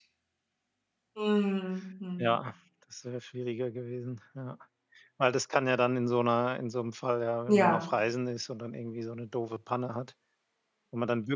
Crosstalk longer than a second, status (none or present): none